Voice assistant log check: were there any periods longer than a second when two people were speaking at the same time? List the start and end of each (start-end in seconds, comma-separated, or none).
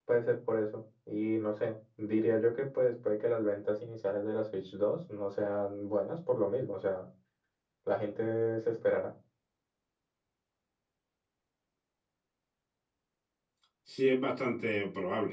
none